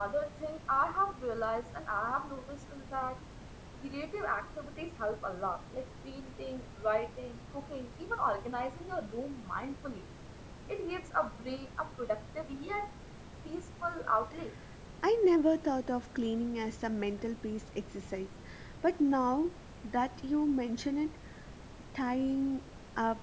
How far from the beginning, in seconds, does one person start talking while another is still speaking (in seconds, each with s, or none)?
none